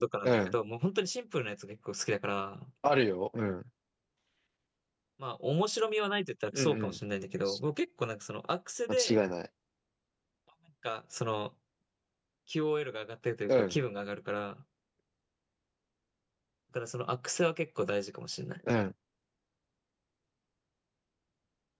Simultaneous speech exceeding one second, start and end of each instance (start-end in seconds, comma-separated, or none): none